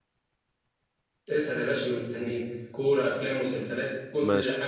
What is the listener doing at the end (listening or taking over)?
taking over